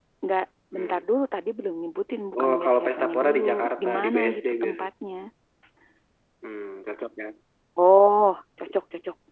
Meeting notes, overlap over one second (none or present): present